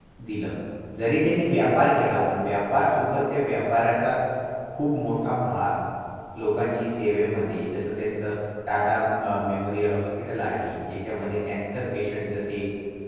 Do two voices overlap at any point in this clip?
No

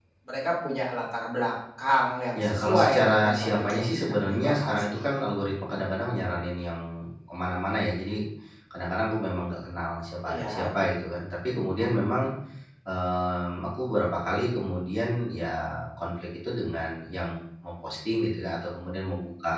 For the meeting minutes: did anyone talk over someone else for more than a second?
Yes, from 2.4 s

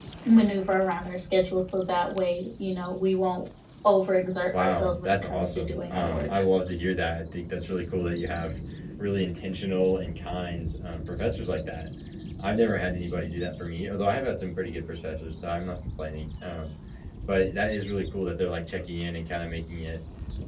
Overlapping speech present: Yes, from 4.5 s

